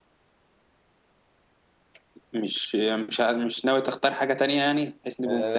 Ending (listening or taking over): taking over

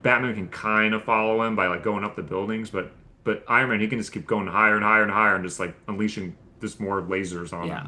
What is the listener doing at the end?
taking over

